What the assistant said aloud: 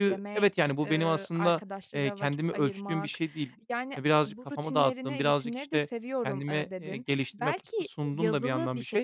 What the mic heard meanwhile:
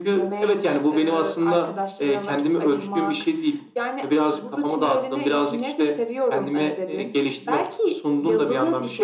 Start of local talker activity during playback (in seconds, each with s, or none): none